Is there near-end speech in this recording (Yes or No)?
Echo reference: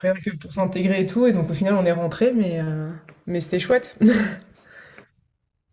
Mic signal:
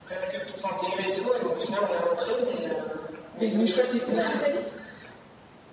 Yes